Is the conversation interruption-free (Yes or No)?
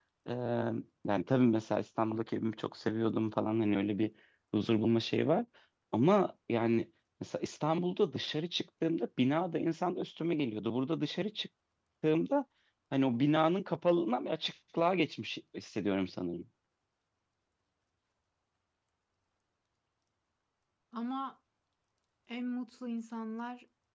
Yes